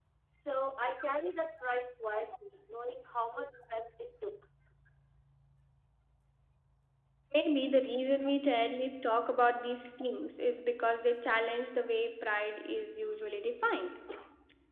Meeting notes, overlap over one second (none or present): none